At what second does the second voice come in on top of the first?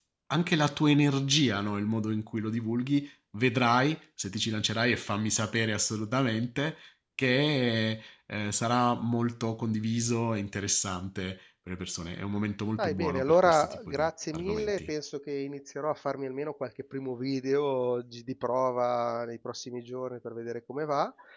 12.8 s

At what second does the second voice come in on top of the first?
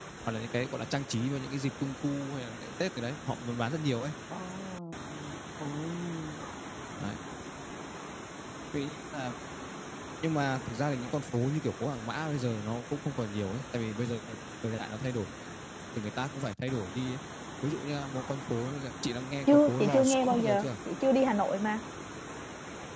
19.5 s

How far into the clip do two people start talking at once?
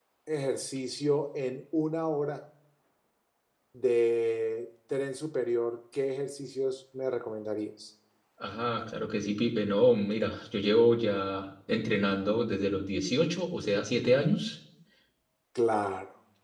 none

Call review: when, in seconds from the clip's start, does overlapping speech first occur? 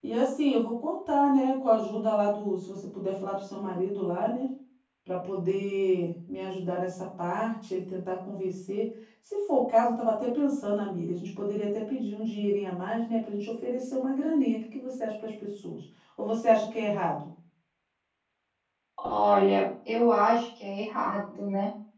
none

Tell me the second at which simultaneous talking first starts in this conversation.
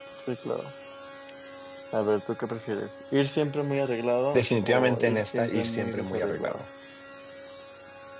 4.3 s

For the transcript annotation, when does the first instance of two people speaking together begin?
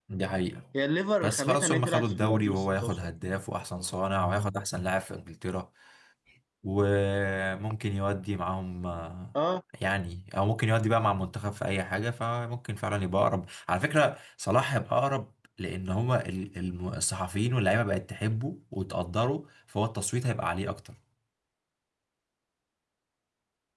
1.2 s

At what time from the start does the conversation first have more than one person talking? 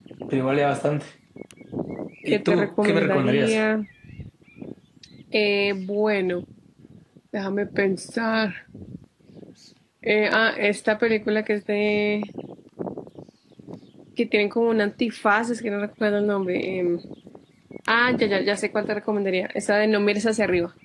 2.3 s

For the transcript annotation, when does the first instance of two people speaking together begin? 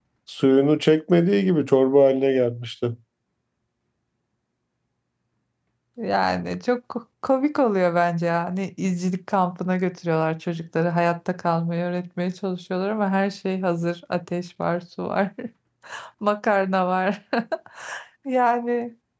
none

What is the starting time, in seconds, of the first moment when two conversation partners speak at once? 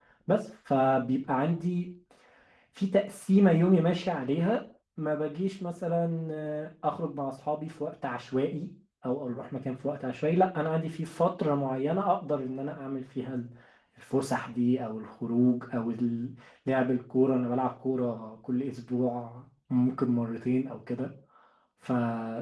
none

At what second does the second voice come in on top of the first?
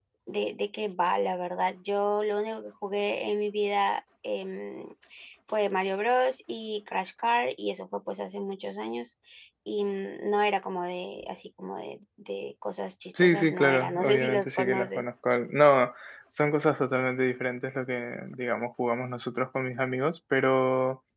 13.2 s

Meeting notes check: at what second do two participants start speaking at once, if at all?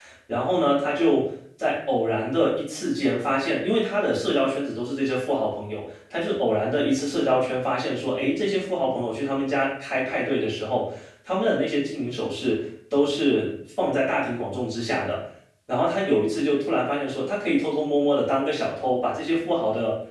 none

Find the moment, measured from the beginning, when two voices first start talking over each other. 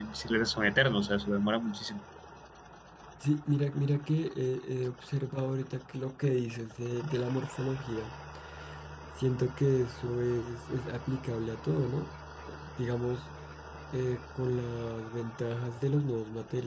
none

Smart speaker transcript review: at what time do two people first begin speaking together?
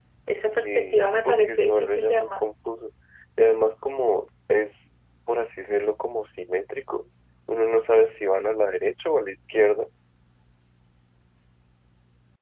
0.6 s

